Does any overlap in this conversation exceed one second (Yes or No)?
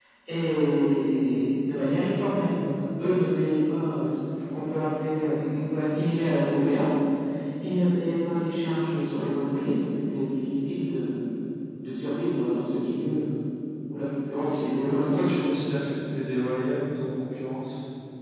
Yes